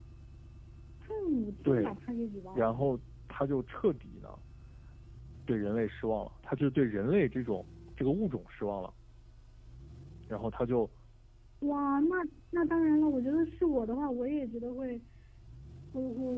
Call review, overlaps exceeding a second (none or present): none